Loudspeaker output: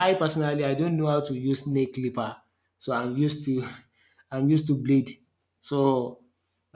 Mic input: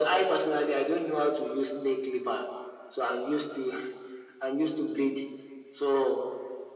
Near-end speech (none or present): none